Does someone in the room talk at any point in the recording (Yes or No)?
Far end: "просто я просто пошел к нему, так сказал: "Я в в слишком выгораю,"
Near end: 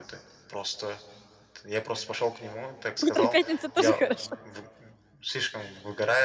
Yes